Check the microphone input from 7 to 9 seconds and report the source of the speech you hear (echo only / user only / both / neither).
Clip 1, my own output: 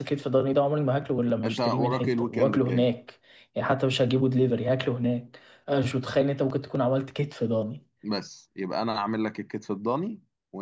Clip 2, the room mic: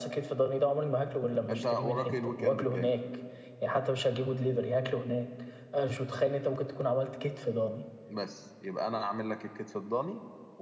echo only